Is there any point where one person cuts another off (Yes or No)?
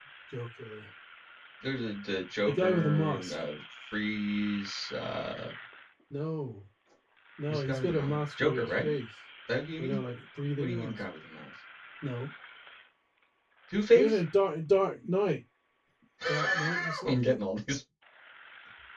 Yes